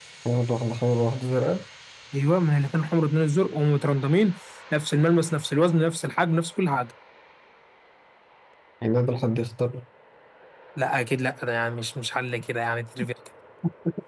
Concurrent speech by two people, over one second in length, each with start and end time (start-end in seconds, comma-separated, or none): none